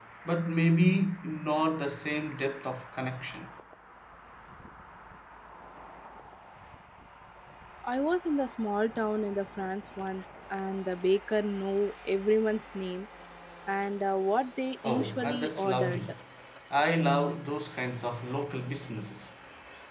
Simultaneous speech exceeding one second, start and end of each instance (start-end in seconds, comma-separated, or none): 14.8-16.1